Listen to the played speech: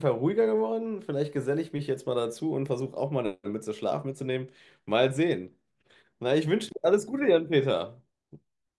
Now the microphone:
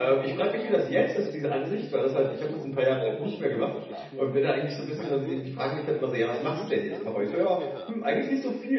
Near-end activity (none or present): present